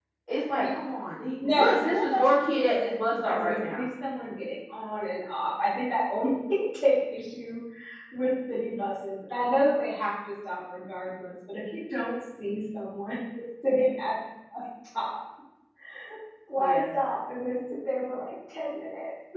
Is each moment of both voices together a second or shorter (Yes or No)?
No